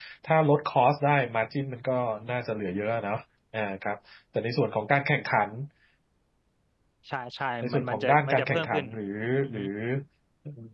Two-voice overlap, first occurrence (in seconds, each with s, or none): 7.6 s